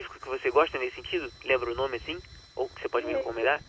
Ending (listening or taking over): taking over